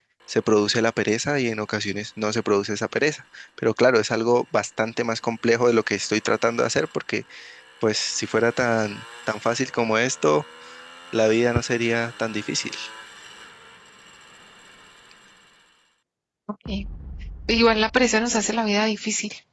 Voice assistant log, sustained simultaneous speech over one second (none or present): none